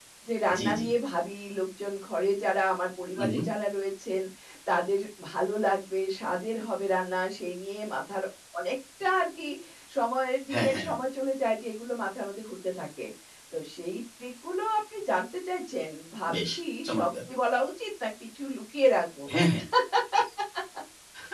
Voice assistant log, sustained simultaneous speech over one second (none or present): none